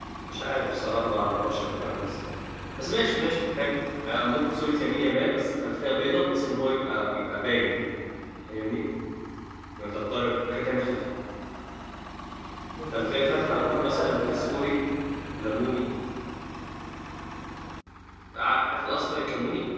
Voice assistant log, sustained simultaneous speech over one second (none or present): present